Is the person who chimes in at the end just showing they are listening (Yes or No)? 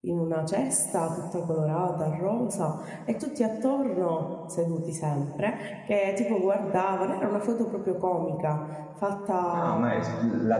No